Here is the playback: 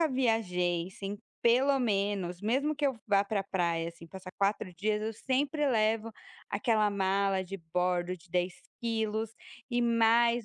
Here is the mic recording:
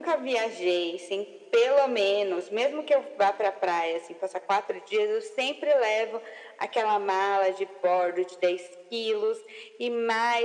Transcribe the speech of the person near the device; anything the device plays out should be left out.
none

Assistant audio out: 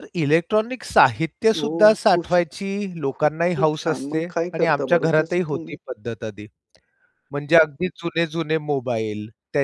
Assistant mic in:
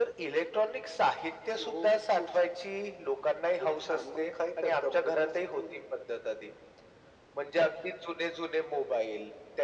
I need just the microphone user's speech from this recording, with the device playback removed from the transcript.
none

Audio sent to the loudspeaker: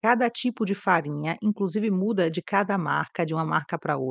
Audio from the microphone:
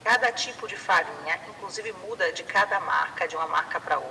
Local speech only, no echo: none

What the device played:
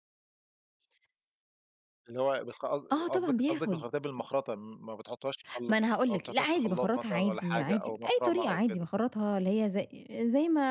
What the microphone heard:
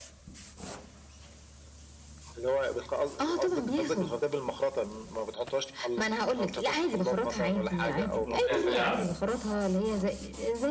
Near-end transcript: الملوخية سريعة؟

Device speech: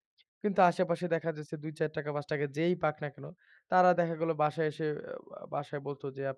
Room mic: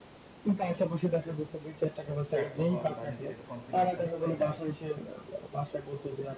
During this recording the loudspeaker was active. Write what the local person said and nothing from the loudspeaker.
ব্যর্থ হন বা নিজের একটু কনফিডেন্স টা কমে যায়।

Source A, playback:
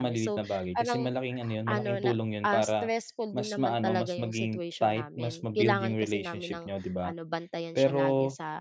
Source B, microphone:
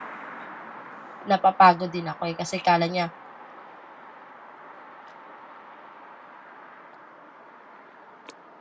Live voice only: napapagod din ako, eh kasi akala niya

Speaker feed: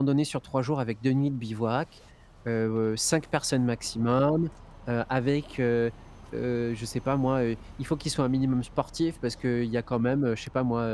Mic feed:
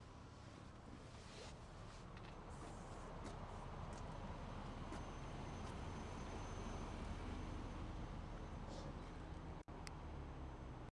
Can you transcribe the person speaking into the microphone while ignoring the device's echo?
none

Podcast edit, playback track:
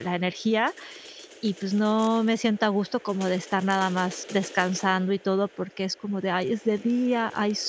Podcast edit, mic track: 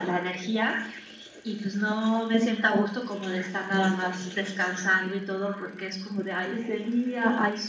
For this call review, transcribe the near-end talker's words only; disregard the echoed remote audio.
none

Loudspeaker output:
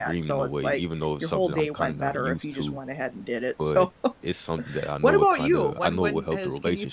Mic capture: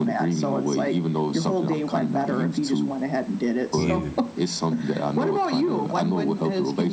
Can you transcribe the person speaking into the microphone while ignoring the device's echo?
Yeah.

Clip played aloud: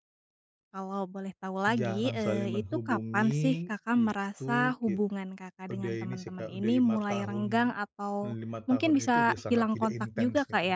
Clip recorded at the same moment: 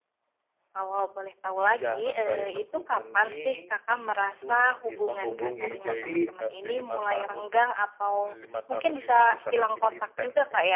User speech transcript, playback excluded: menghubungi, tapi

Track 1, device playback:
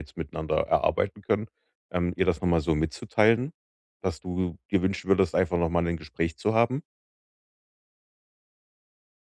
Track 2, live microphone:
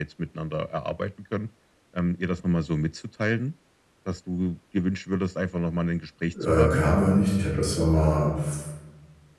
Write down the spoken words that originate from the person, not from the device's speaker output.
äh, kamen wir da nicht. Ich habe das zwar mal f

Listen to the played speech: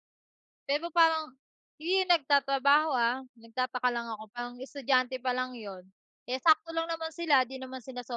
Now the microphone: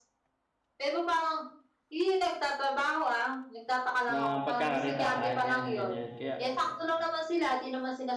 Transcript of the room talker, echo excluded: ng pagkakakitaan yan ganyan kaya,

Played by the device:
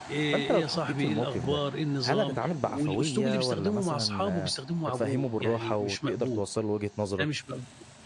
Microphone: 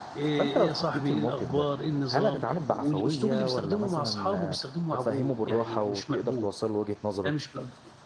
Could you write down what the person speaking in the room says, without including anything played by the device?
none

